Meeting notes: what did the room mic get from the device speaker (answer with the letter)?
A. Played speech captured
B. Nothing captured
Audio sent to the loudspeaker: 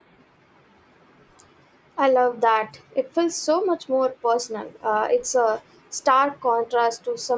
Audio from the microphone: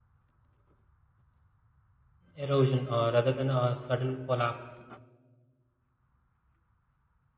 B